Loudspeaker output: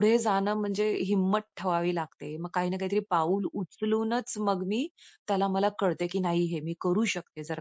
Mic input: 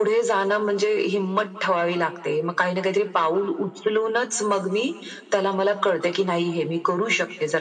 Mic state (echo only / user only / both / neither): echo only